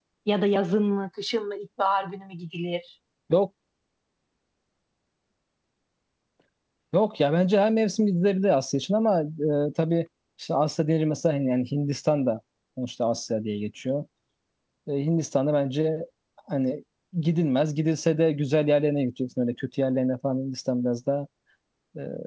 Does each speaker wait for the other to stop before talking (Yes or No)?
Yes